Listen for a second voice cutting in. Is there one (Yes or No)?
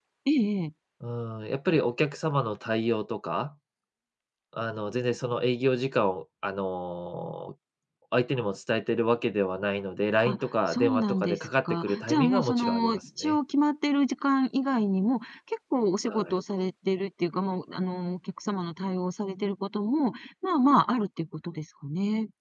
Yes